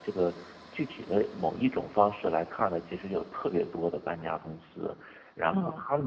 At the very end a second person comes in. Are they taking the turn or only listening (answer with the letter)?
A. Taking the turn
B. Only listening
B